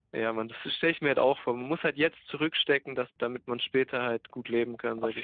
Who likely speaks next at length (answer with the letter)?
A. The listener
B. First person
A